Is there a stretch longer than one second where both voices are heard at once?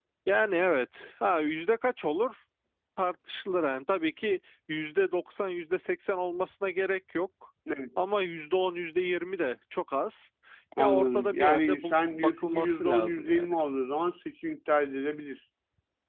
Yes, from 10.8 s

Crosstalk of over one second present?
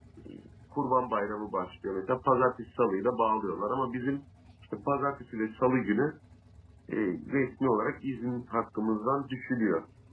No

